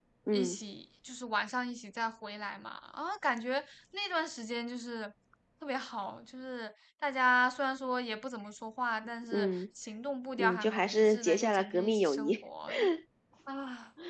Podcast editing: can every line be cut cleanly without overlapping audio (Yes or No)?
No